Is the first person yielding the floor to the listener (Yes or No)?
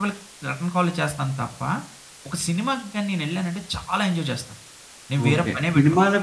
Yes